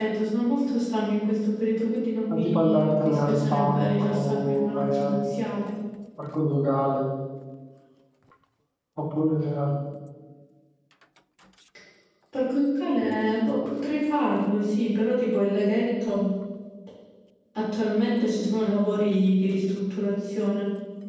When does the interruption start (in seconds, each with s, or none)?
2.3 s